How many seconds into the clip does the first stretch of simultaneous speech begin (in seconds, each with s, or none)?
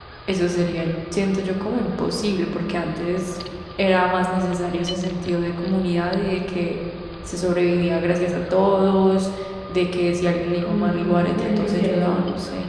10.7 s